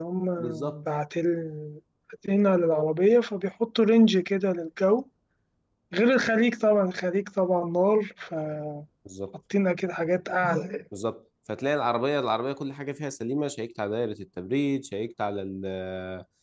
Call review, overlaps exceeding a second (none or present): none